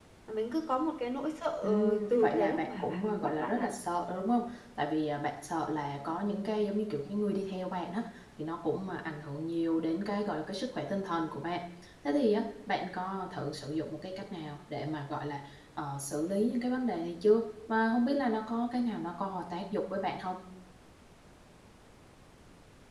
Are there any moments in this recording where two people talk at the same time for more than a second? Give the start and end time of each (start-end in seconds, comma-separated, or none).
1.6-3.7